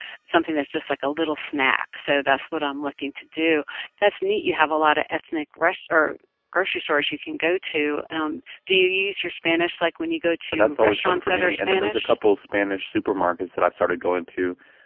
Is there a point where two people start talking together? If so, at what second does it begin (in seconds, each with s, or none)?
10.5 s